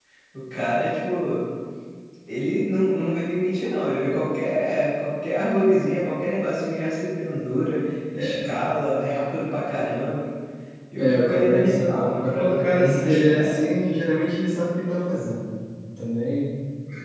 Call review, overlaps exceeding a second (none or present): present